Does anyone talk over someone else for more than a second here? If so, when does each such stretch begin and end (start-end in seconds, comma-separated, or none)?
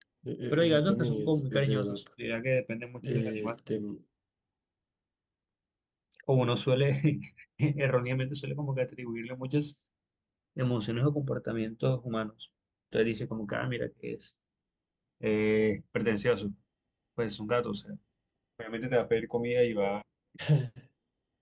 0.5-2.0